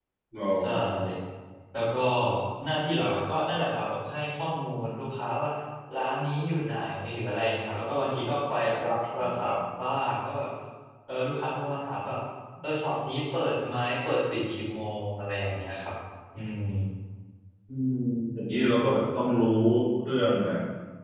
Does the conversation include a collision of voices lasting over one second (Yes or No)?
No